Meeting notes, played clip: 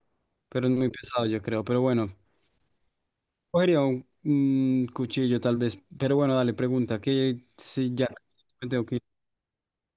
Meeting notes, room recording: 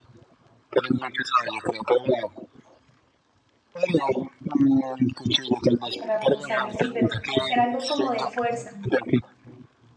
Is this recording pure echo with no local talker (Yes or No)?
No